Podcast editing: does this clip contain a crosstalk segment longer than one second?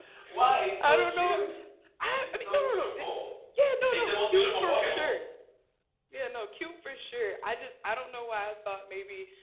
Yes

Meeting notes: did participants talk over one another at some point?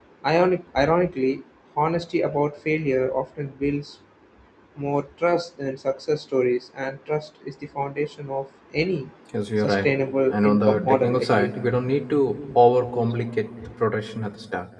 Yes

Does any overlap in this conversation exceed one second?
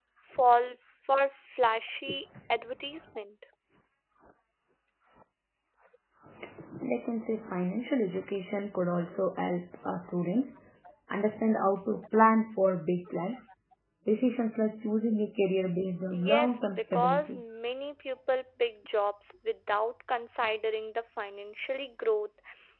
Yes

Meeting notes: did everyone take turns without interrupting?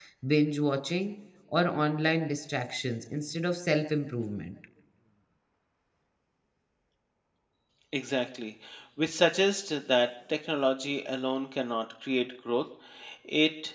Yes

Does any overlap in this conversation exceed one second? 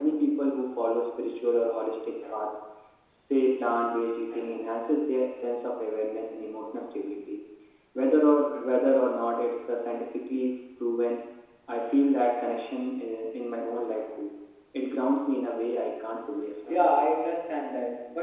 No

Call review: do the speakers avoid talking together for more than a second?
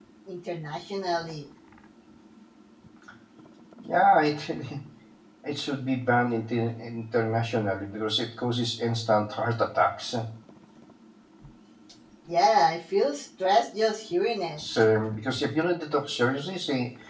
Yes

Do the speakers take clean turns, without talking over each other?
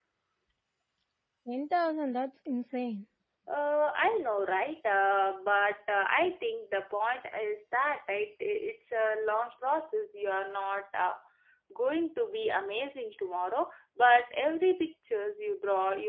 Yes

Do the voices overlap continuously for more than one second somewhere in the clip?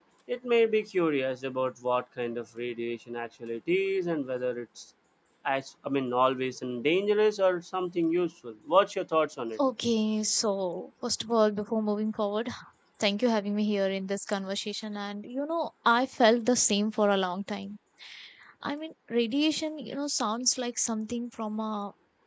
No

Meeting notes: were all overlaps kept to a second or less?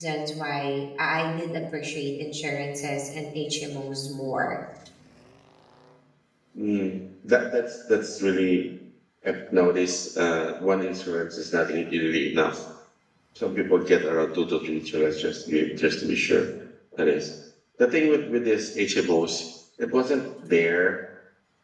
Yes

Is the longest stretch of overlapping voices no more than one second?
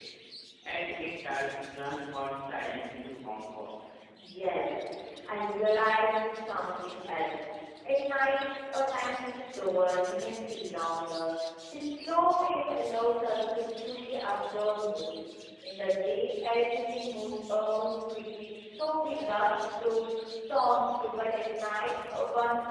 Yes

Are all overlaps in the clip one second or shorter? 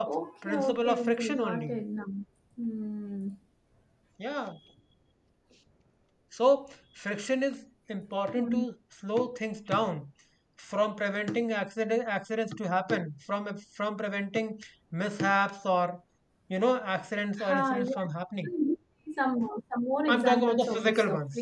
No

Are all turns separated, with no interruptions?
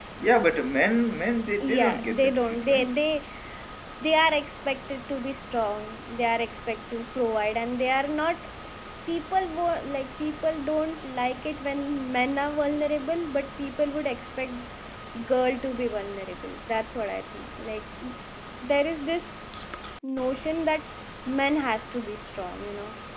No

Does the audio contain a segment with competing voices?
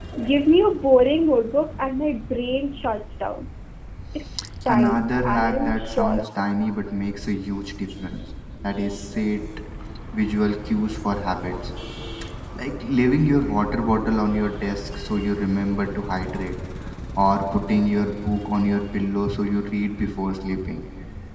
Yes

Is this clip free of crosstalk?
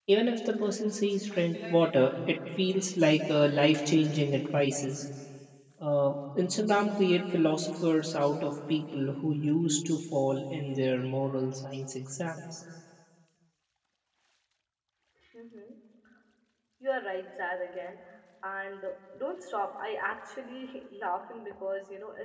Yes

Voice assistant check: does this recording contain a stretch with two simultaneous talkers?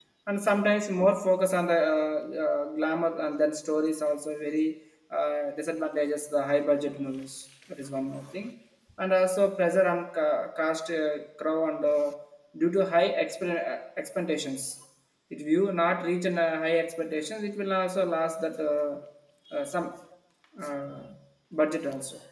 No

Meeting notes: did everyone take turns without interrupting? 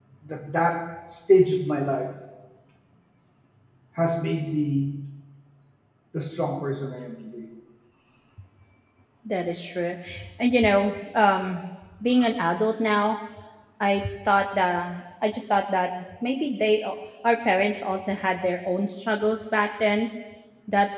Yes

